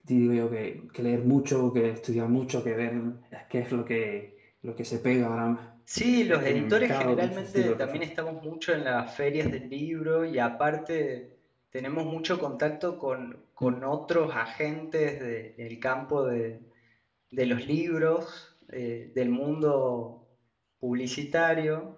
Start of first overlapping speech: 6 s

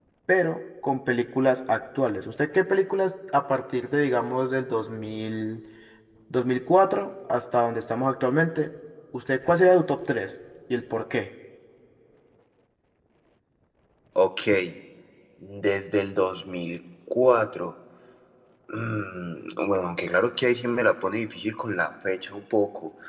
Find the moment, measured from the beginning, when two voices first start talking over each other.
none

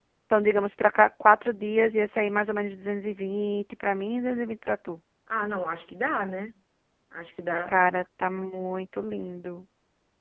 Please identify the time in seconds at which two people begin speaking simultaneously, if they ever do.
none

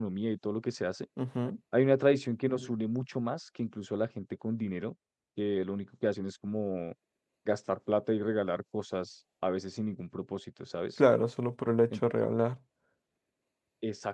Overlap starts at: none

